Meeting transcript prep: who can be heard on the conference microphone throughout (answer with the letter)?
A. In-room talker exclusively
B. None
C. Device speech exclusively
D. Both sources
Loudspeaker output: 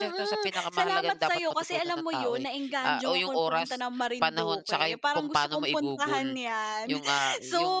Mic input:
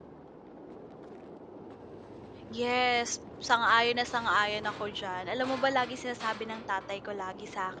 A